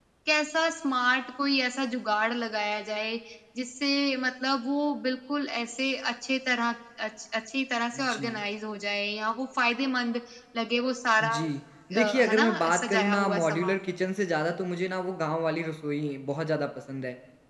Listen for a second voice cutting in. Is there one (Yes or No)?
Yes